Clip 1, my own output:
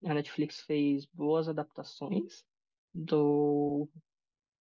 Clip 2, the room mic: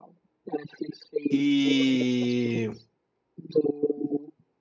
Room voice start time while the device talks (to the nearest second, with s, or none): 1 s